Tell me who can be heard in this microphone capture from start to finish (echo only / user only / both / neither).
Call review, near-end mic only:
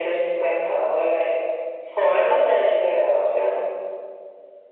echo only